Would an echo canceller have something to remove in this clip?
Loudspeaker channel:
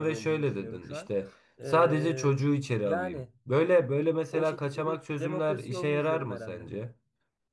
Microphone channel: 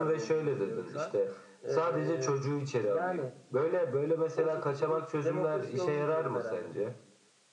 Yes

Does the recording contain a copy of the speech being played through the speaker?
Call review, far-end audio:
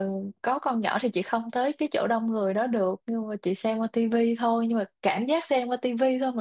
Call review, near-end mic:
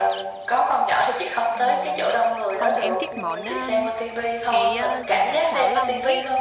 Yes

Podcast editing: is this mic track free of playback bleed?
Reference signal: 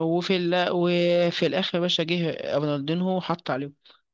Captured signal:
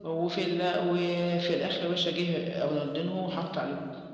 No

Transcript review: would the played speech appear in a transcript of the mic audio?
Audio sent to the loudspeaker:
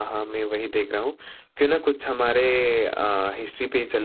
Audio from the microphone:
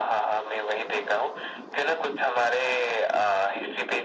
Yes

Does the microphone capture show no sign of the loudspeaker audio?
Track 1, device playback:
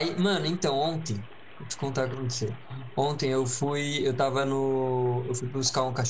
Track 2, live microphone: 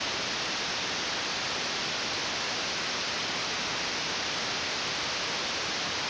Yes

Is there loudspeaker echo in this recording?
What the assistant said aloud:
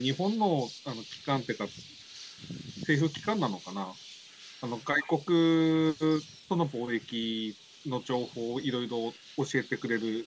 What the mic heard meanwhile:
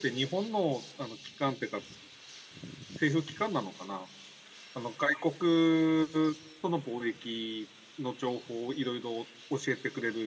Yes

